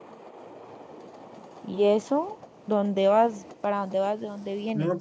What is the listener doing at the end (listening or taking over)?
taking over